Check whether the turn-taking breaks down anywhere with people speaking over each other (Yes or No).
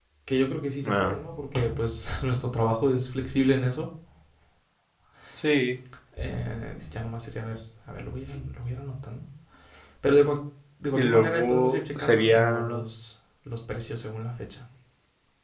Yes